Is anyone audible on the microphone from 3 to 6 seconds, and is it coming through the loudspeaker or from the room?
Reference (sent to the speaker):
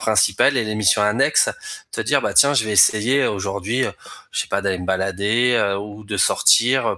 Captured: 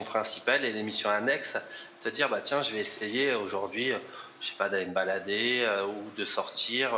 echo only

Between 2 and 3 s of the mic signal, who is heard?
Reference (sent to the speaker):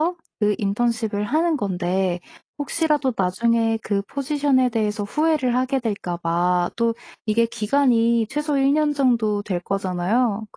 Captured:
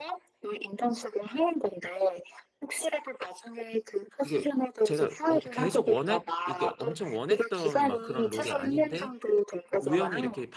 echo only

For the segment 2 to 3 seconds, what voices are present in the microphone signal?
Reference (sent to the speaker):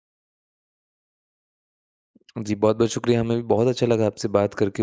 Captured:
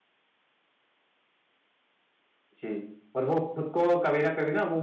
user only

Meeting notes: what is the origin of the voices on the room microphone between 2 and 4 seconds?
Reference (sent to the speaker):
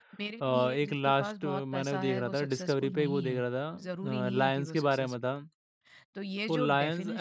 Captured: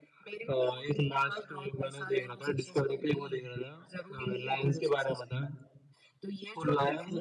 echo only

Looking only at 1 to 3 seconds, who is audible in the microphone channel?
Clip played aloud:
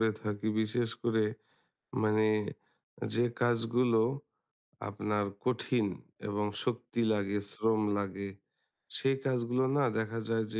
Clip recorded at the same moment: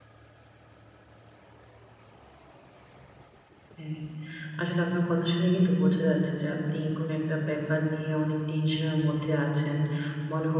neither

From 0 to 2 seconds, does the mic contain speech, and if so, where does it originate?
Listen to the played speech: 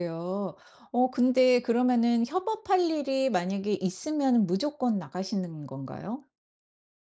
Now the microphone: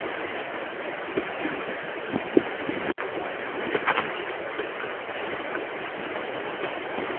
neither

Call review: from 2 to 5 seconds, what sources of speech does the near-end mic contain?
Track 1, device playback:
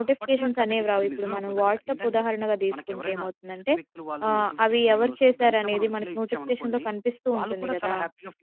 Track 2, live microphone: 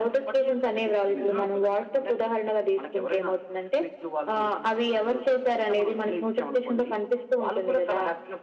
echo only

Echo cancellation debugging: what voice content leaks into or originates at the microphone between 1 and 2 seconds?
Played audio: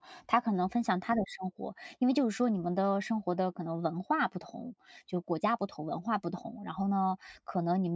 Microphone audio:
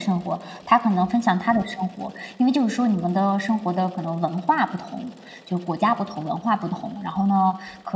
echo only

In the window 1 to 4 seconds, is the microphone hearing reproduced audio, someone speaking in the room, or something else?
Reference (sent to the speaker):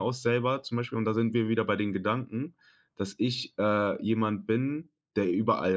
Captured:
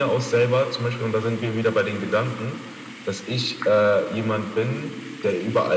echo only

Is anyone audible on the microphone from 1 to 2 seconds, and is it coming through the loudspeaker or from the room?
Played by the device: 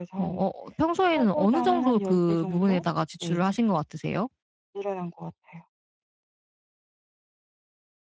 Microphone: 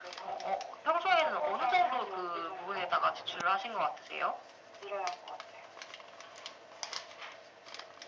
echo only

